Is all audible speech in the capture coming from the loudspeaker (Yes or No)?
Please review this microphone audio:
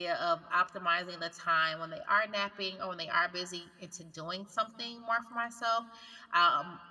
No